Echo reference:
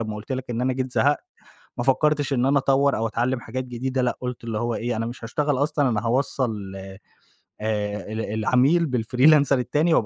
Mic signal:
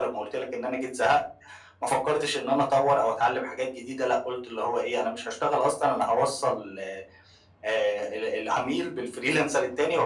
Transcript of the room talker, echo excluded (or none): none